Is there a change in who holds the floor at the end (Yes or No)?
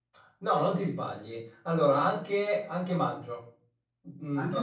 No